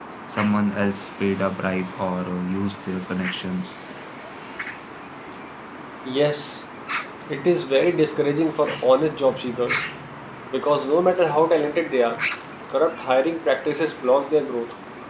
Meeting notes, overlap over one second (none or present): none